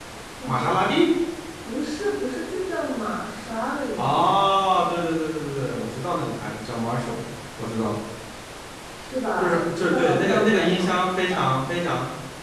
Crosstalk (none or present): present